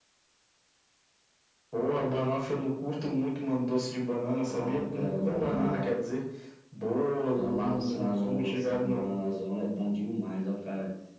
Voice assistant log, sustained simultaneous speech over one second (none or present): present